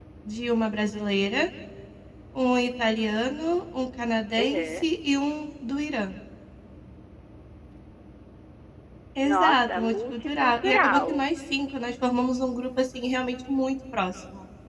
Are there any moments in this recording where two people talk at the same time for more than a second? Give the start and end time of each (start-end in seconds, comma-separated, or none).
9.2-11.3